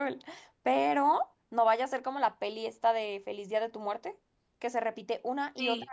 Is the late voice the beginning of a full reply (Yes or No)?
No